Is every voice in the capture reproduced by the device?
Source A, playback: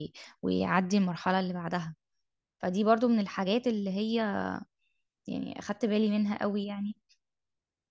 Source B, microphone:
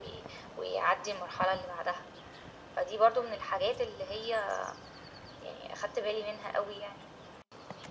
Yes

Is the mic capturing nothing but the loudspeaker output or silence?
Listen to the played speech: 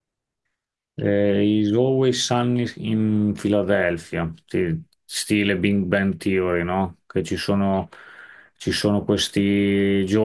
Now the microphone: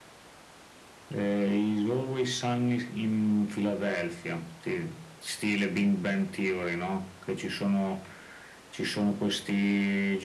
Yes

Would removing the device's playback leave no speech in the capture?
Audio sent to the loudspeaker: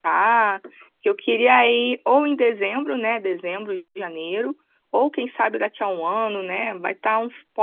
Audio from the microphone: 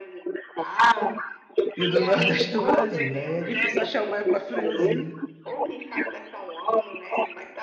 No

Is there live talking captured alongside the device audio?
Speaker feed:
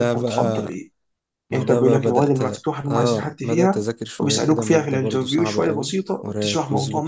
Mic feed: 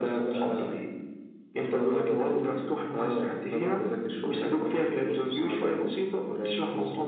No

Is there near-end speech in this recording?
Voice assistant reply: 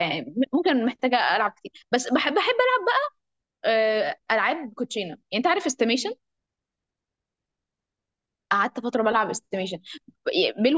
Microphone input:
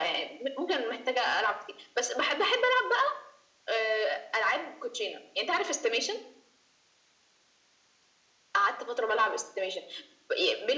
No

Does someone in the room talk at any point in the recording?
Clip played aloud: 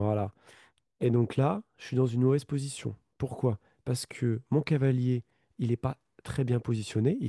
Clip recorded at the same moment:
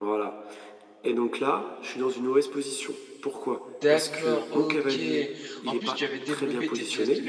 Yes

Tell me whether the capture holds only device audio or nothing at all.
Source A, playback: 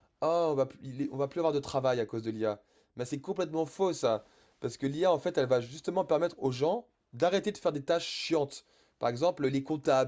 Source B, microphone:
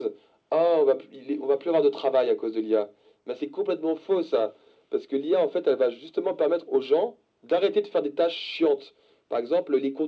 Yes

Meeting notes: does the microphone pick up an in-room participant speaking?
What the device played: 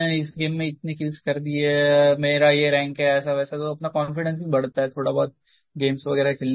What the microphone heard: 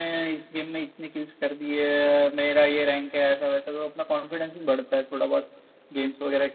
No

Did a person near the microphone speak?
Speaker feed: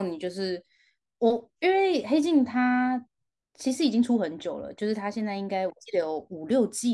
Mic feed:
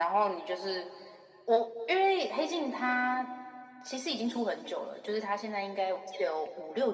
No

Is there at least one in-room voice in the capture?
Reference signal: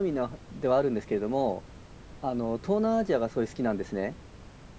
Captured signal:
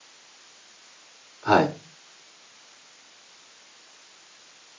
Yes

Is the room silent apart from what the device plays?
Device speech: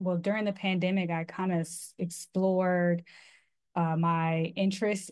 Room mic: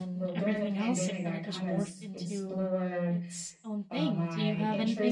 No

